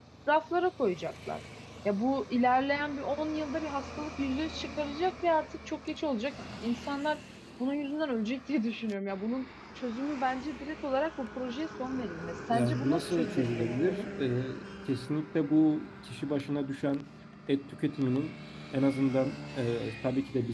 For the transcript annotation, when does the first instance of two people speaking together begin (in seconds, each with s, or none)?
12.5 s